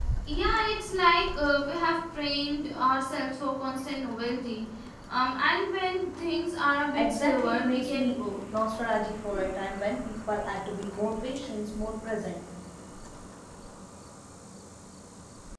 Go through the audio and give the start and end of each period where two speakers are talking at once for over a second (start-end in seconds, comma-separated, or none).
6.9-8.2